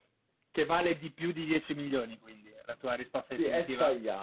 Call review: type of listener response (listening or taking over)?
taking over